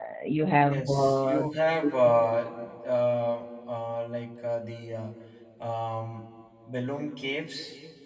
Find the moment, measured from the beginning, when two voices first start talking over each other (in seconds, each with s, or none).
0.5 s